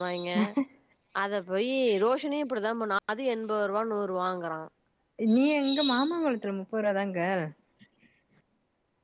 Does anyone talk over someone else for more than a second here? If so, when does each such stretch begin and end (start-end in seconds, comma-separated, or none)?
none